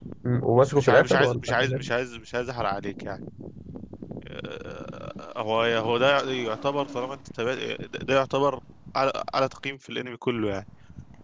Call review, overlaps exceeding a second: present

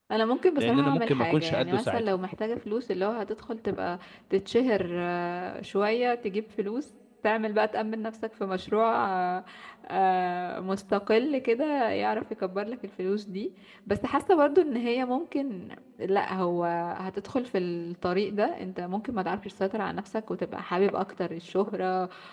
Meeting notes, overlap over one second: present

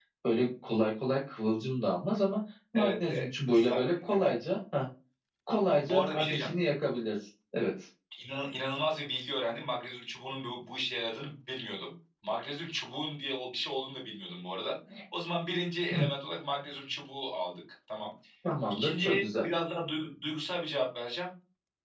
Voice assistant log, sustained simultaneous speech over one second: present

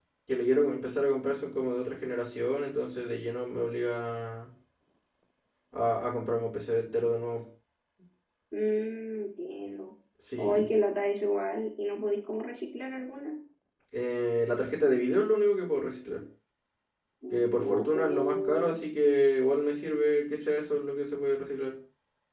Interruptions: present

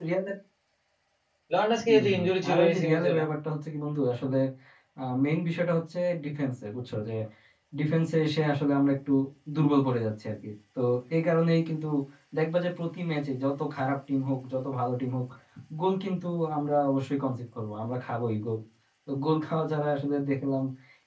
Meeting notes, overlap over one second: present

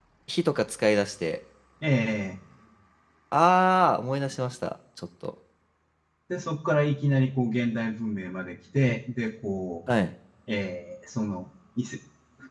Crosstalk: none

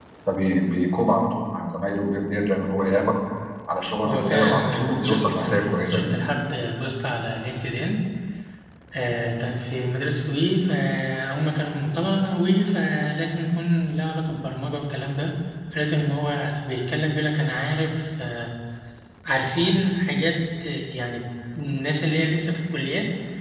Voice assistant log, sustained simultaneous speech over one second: present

